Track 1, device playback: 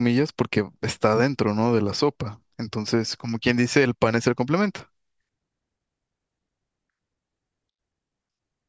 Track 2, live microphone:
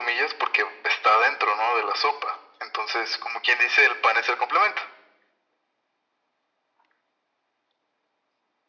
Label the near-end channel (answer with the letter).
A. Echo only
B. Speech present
A